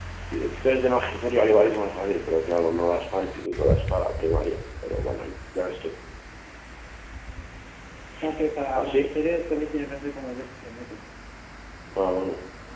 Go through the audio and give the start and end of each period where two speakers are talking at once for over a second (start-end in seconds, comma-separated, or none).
none